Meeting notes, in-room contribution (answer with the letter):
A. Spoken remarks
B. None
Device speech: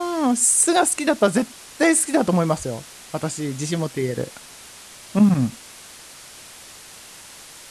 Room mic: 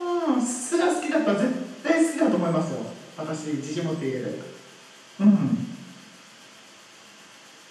B